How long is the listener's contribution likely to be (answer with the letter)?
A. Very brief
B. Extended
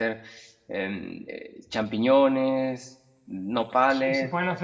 B